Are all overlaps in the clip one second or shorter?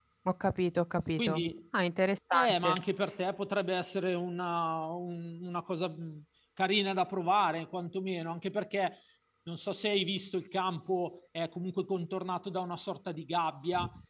Yes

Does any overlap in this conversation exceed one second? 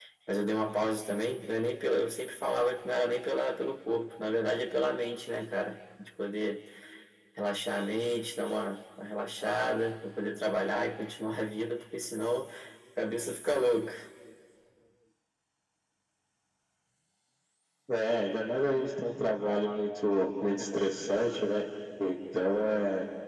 No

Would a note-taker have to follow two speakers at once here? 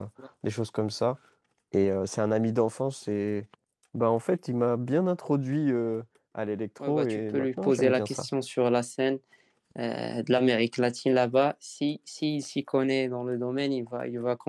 Yes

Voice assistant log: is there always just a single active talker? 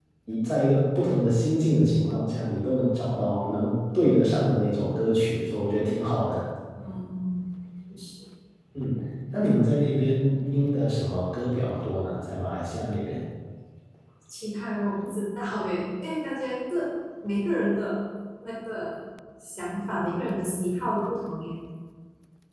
Yes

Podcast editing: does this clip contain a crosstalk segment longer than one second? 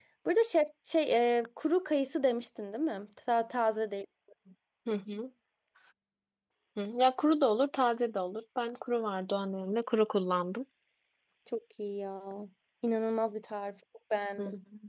No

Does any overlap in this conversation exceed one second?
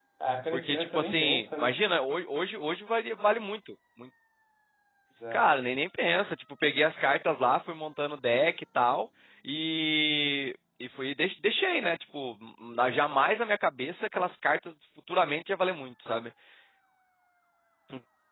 Yes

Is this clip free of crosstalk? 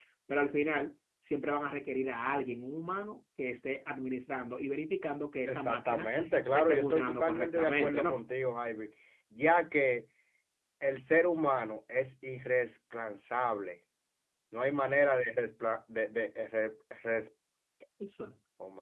No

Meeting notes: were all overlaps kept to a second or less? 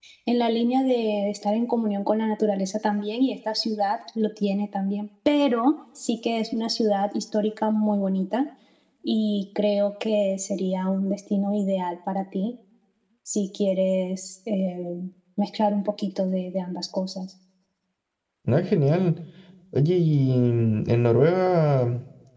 Yes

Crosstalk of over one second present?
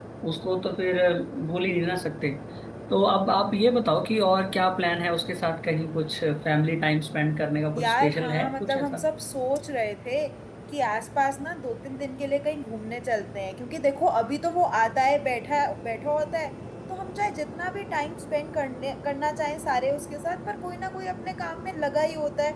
Yes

